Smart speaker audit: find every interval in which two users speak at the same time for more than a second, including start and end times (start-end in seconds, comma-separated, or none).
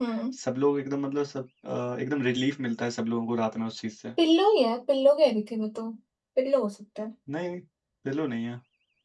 none